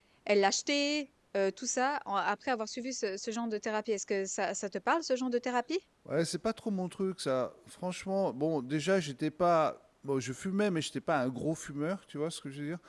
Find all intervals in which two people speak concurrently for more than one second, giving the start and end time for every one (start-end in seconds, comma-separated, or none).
none